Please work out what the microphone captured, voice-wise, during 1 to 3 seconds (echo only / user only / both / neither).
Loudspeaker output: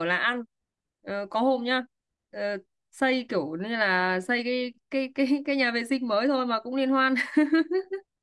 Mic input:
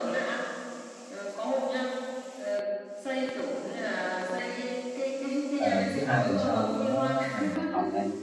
echo only